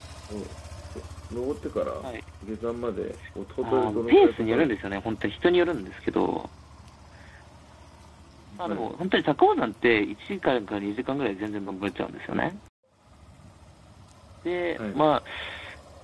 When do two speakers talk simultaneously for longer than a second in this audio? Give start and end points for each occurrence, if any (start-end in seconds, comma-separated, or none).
3.6-4.8